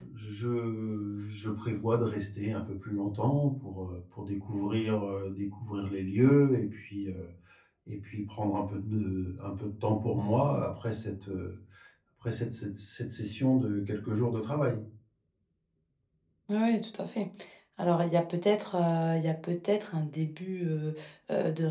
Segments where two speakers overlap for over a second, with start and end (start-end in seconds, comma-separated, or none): none